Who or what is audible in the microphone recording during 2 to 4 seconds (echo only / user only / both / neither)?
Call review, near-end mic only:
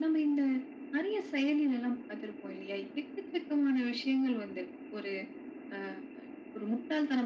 echo only